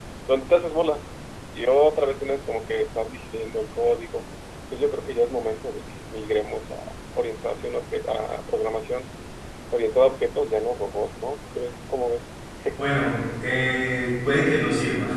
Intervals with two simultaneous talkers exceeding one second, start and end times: none

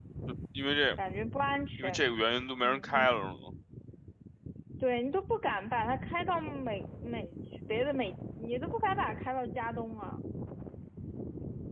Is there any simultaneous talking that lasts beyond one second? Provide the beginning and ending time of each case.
none

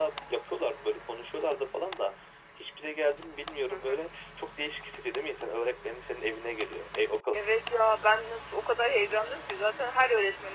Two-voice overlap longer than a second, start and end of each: none

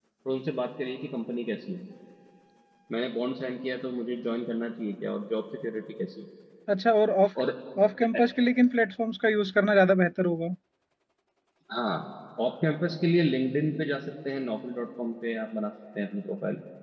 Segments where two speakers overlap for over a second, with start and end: none

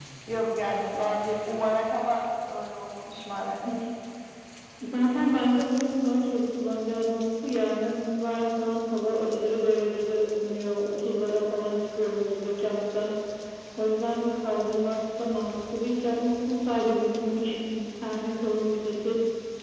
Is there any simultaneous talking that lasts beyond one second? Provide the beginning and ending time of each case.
none

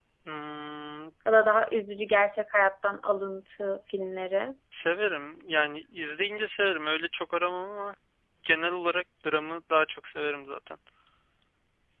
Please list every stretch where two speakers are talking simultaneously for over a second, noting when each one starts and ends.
none

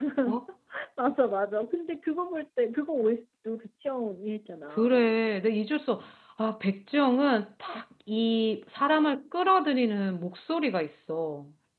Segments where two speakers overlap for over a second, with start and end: none

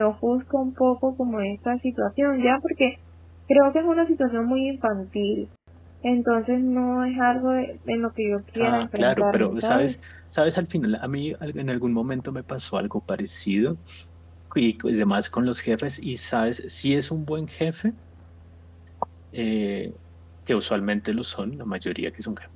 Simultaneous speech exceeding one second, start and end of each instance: 8.6-9.9

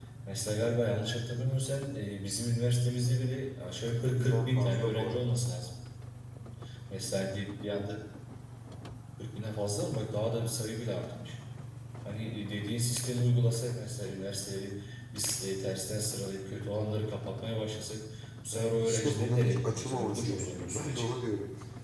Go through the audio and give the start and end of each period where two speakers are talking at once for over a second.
4.2-5.4, 18.5-21.1

